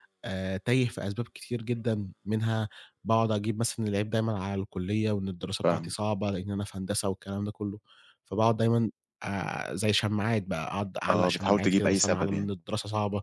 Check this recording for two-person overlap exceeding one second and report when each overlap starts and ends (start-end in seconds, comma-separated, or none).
11.1-12.5